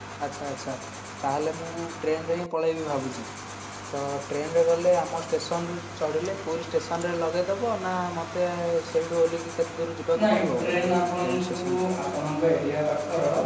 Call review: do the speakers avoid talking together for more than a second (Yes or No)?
No